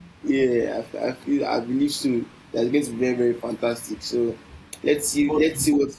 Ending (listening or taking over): listening